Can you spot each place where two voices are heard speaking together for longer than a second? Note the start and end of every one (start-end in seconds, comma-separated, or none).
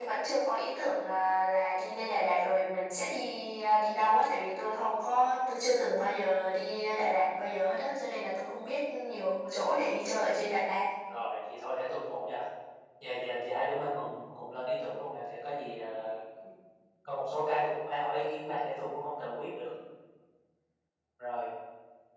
none